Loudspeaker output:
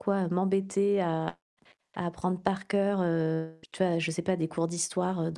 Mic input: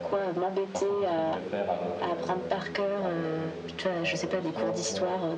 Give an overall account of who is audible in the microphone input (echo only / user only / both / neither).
both